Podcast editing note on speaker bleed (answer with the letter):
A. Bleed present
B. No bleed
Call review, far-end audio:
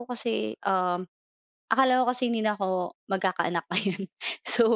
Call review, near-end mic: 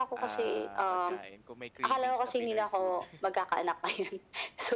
A